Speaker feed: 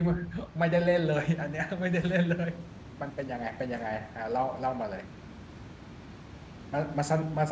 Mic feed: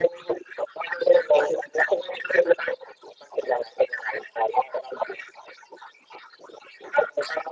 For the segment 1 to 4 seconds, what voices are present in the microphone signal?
echo only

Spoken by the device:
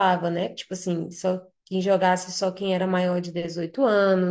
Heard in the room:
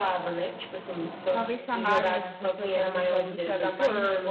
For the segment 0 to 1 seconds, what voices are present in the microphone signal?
echo only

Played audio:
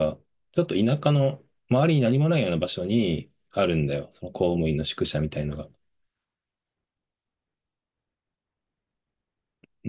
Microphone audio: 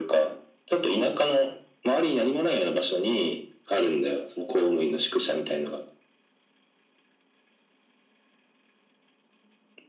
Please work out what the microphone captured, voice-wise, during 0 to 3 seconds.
echo only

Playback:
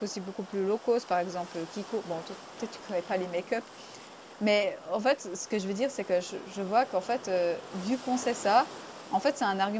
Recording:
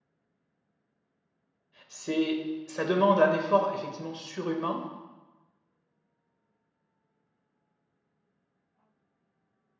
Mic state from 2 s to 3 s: user only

